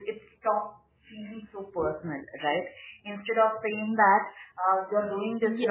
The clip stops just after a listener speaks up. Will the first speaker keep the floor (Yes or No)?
Yes